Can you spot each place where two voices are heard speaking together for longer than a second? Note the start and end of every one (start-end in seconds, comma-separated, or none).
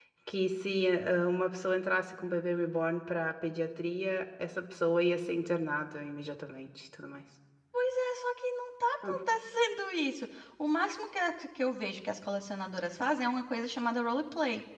none